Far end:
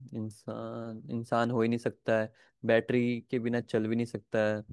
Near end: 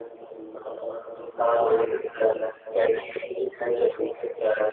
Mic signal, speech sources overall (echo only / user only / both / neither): echo only